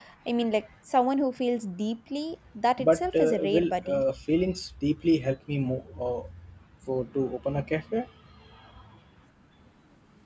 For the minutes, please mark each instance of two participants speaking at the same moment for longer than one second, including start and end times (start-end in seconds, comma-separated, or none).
2.8-4.0